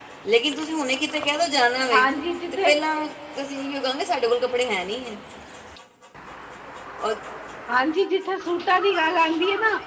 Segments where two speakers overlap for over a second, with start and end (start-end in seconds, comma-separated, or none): none